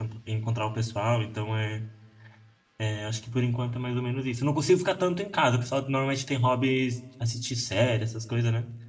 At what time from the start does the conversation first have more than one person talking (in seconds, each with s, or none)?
none